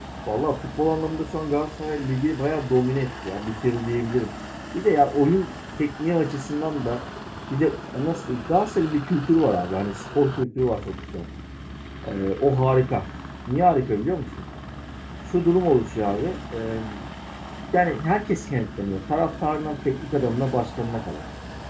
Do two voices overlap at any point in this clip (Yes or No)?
No